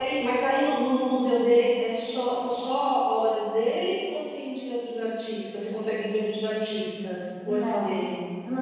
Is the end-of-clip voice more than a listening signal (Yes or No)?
Yes